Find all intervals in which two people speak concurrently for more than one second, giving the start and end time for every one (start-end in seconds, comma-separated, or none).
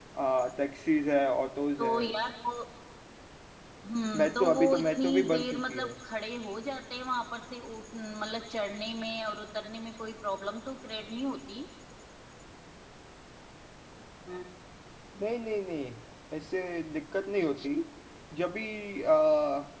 4.2-5.9